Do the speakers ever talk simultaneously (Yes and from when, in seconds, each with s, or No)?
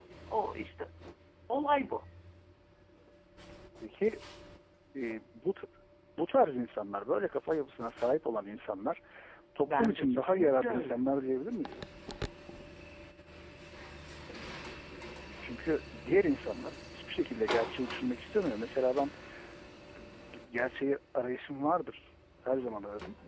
Yes, from 9.7 s